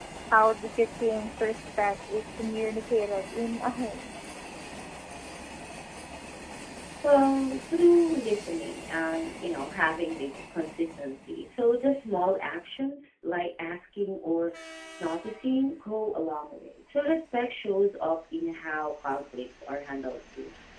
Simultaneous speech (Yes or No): No